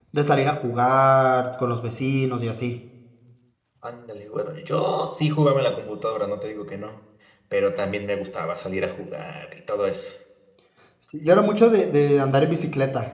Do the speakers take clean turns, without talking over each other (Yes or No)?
Yes